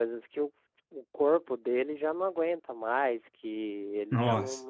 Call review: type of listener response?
listening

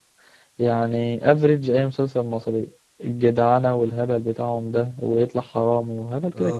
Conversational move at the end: taking over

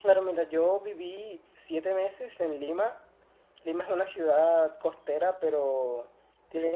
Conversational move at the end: listening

